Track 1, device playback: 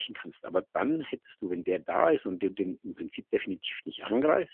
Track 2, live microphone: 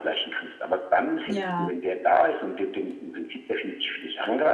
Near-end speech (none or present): present